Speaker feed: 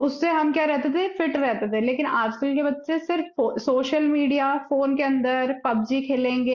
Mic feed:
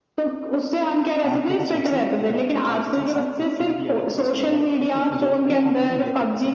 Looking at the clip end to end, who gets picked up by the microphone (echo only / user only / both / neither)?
both